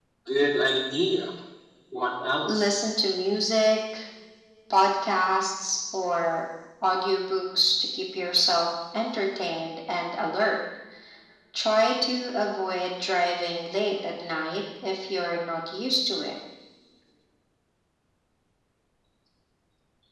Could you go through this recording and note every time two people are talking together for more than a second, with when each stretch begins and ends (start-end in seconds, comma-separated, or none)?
none